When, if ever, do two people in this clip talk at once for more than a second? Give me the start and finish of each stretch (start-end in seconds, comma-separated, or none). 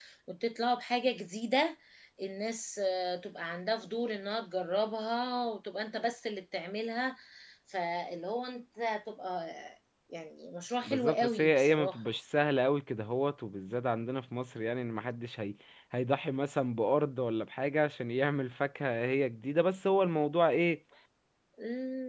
10.9-12.1